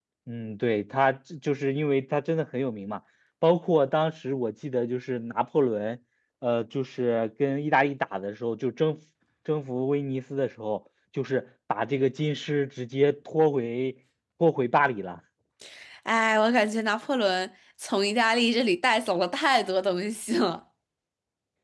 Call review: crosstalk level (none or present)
none